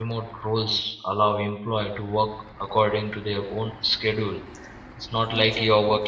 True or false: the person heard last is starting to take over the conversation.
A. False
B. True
A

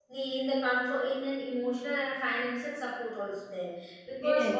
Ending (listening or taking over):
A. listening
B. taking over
A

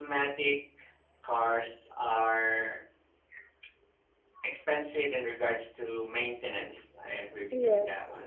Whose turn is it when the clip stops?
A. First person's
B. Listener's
A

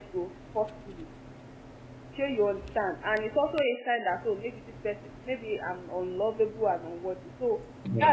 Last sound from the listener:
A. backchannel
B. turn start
A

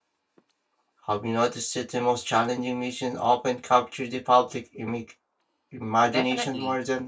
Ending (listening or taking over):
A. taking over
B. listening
A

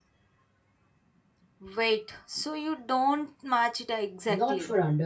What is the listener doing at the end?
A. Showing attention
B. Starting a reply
B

